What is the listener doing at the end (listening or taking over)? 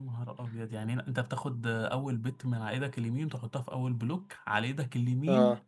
taking over